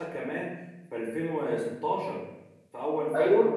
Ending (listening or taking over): taking over